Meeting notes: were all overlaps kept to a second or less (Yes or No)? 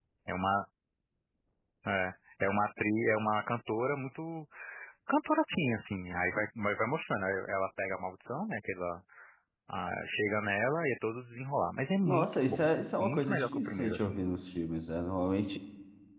No